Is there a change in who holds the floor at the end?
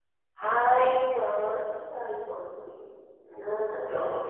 Yes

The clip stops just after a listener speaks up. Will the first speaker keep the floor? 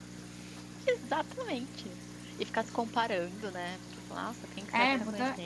No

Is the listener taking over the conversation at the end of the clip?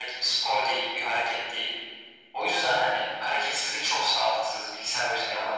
Yes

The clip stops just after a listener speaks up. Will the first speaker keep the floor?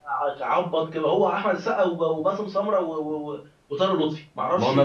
No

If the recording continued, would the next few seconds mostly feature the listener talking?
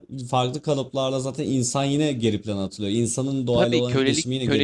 Yes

